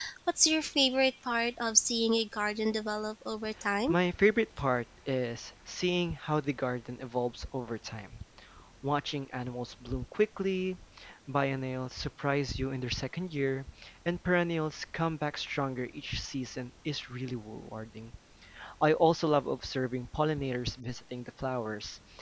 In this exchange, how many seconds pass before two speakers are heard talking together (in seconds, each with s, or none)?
none